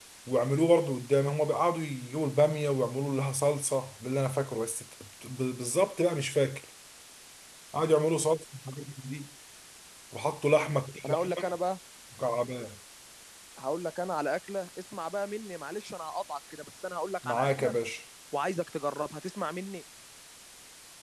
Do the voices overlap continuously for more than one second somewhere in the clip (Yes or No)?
No